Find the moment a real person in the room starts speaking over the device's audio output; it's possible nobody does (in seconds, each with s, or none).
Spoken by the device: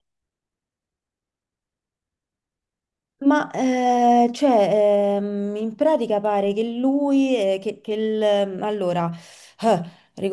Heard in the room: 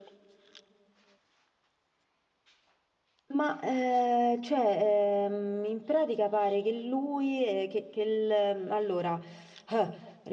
none